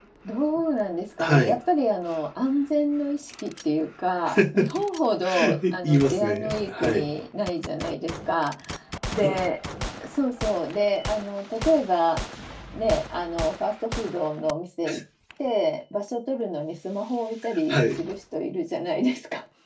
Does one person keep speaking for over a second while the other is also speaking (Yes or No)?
Yes